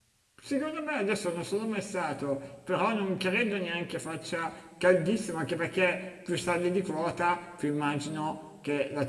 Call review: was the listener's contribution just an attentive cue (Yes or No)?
Yes